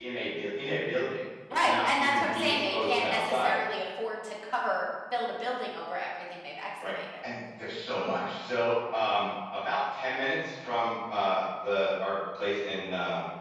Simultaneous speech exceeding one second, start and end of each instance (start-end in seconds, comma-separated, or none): 1.6-3.5